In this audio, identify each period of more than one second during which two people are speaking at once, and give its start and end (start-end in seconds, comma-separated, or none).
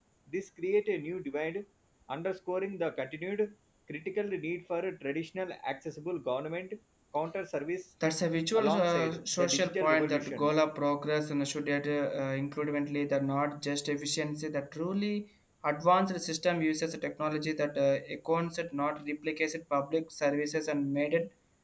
8.6-10.5